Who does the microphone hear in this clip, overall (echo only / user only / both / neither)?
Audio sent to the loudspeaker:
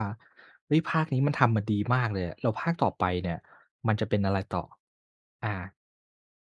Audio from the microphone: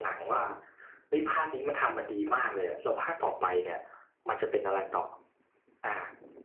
echo only